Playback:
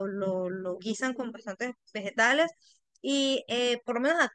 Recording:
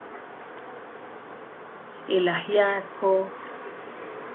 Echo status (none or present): none